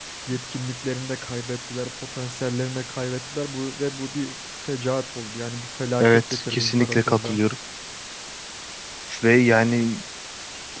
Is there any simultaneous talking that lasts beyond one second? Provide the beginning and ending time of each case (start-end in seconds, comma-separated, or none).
6.0-7.4